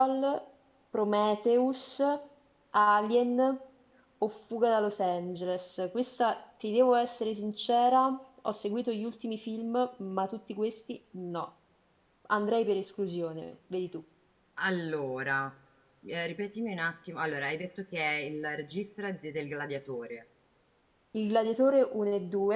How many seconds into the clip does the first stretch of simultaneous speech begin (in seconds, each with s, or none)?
none